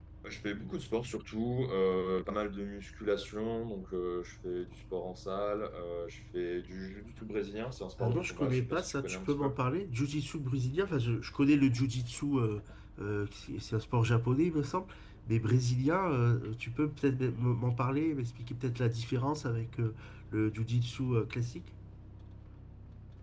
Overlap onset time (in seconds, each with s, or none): 8.0 s